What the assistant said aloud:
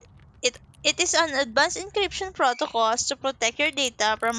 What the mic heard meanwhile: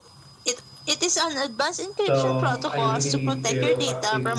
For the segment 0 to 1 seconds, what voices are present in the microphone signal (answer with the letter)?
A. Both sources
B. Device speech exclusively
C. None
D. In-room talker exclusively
B